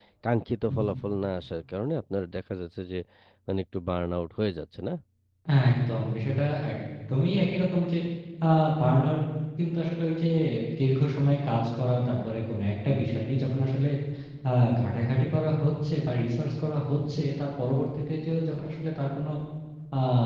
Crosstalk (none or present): none